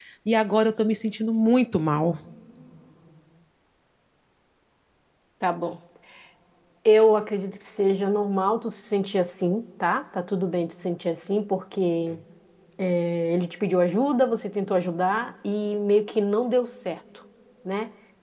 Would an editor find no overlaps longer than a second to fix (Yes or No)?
Yes